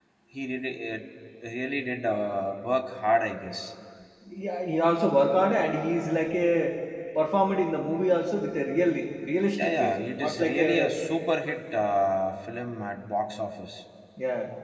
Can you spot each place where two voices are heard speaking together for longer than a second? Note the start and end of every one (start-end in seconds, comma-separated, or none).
9.6-10.9